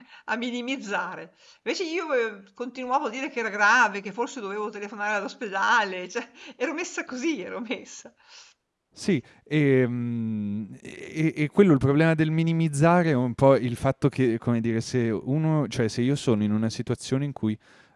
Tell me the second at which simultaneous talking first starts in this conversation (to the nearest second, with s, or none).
none